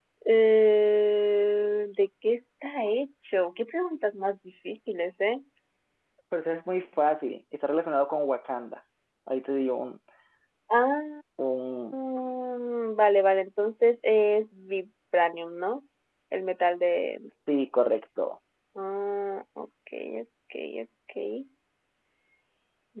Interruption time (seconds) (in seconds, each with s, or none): none